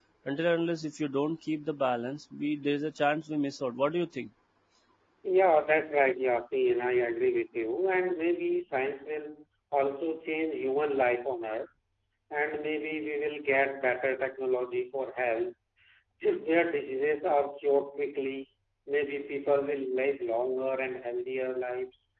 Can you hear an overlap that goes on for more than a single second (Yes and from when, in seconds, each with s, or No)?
No